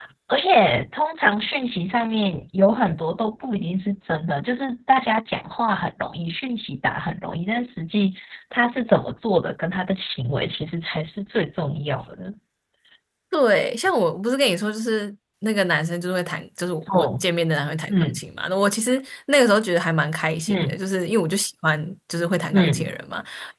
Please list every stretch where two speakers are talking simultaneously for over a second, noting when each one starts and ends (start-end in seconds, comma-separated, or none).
none